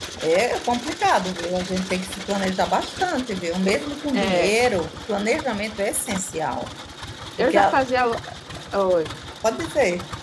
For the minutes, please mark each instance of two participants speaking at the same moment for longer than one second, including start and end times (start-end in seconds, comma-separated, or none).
none